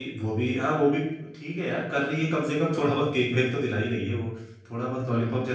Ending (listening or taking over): taking over